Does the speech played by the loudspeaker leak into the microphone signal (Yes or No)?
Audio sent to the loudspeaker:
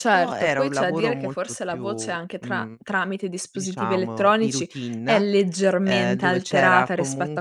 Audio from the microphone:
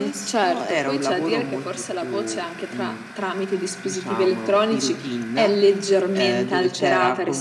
Yes